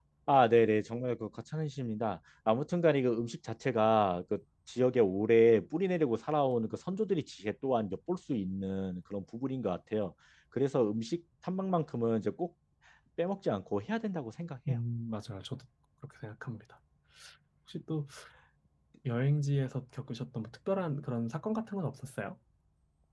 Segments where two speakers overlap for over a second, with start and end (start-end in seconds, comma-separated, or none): none